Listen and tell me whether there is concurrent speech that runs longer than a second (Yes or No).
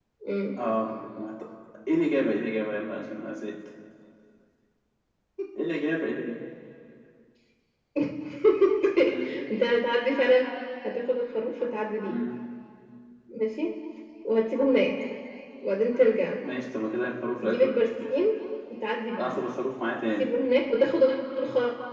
No